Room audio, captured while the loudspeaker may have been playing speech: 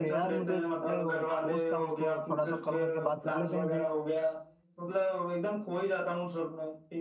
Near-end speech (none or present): present